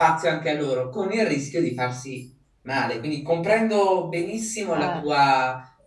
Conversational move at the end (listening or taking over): listening